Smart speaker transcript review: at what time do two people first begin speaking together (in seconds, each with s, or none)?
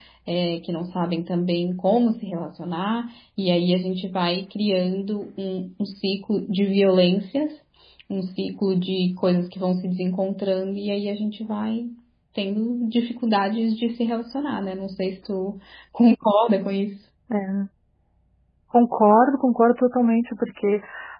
none